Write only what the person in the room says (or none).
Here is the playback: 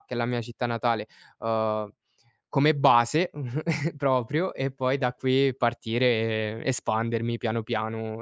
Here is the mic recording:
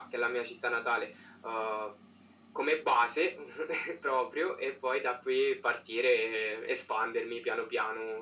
none